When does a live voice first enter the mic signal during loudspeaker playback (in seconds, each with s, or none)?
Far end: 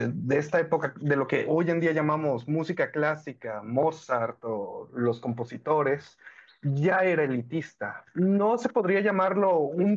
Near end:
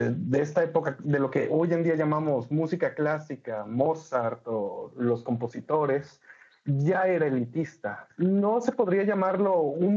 none